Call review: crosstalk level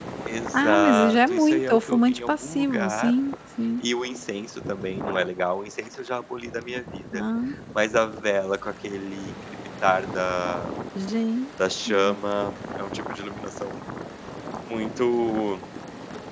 present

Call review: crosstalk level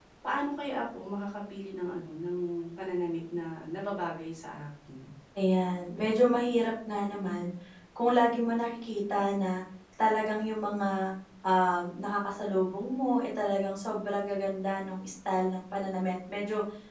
none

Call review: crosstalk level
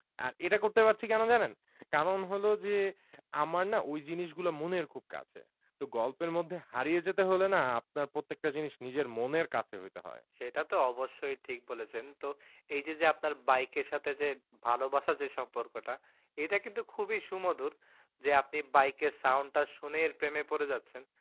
none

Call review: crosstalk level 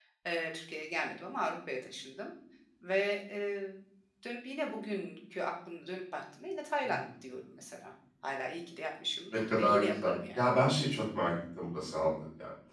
present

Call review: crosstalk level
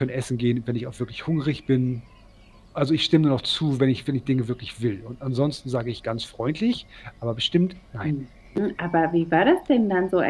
none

